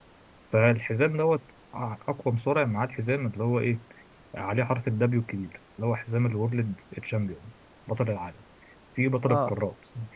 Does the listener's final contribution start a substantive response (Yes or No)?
No